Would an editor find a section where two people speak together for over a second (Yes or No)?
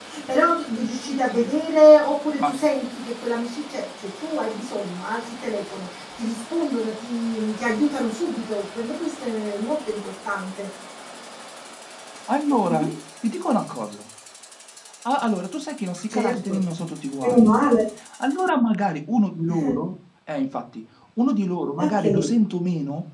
No